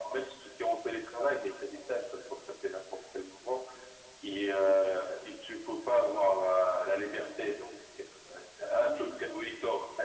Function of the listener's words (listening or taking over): listening